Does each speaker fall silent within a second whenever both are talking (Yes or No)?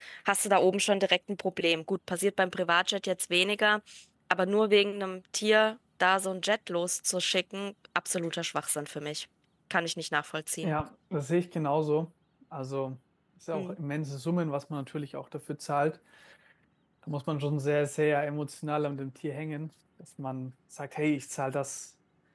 Yes